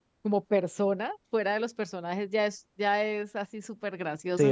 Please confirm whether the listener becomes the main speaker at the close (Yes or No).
Yes